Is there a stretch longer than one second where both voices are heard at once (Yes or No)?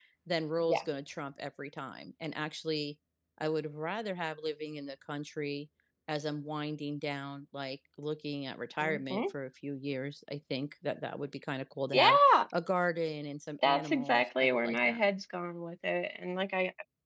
Yes